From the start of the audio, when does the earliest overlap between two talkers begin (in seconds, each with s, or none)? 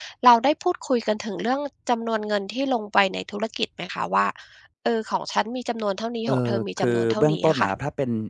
6.3 s